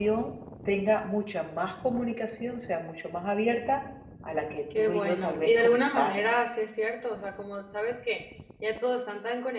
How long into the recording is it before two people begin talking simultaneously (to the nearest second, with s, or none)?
5 s